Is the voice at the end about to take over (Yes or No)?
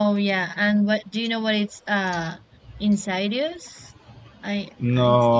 Yes